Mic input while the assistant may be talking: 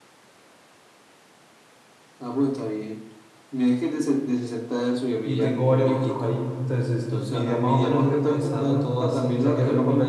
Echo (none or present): present